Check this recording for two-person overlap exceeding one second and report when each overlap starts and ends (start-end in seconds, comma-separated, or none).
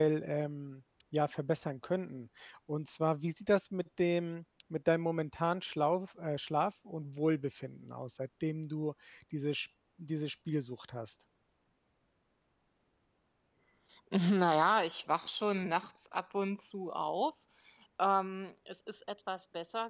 none